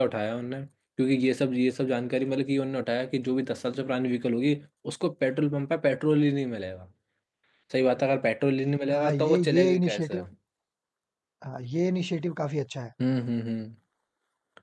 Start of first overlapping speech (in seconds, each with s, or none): 8.9 s